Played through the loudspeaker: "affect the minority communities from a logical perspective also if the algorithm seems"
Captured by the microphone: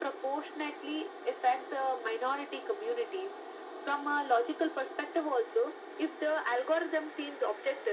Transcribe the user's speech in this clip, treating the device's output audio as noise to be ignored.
none

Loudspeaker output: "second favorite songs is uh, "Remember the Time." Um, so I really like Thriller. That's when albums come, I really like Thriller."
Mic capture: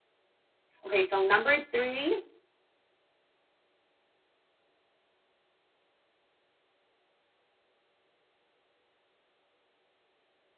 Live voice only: Okay, so number three,

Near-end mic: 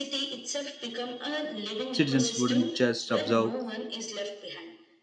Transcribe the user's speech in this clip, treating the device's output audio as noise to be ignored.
Citizens wouldn't just observe,

